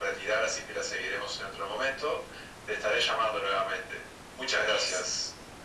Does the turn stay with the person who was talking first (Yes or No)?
No